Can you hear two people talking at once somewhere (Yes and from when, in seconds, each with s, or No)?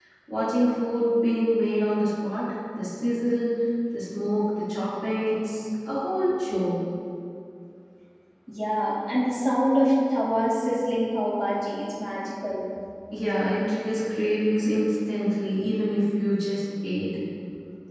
No